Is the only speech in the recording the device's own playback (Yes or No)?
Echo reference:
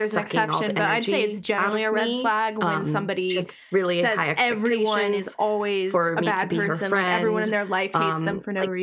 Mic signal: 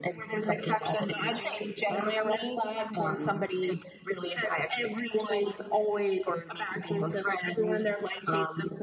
Yes